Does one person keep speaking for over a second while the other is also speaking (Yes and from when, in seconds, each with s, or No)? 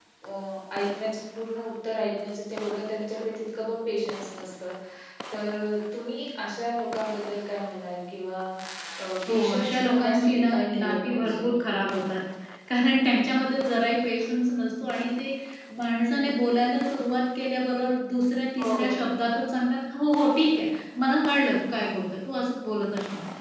Yes, from 9.3 s